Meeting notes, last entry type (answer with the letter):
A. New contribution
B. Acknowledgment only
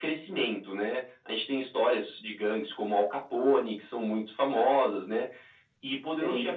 B